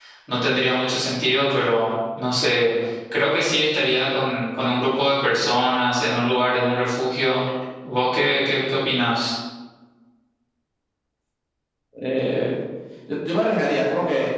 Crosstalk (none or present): none